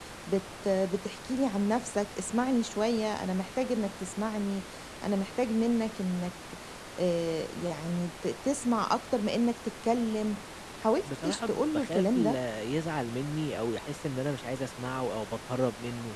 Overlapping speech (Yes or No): Yes